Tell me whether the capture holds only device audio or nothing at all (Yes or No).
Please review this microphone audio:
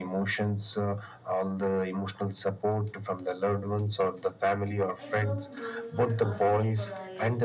No